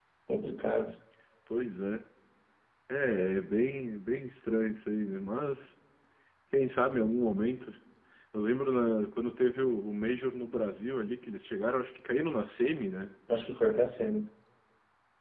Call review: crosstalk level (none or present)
none